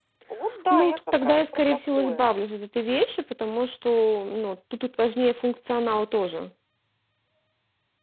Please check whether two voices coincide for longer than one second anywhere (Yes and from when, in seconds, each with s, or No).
Yes, from 0.7 s